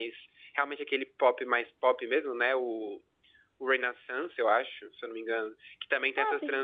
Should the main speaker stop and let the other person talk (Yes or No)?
No